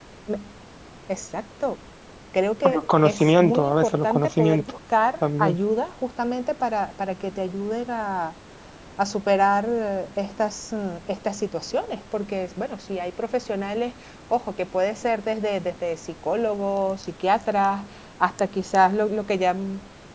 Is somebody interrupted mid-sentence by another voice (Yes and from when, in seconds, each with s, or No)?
Yes, from 2.6 s